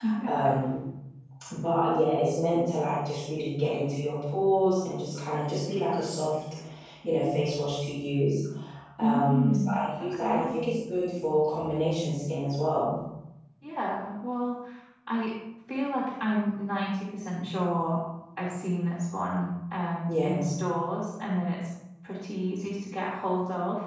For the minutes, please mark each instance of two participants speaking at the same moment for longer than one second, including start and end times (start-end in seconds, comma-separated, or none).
9.0-10.5